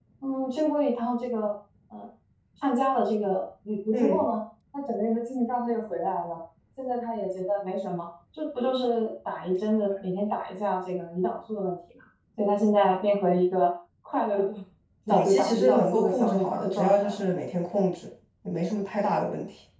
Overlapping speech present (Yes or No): Yes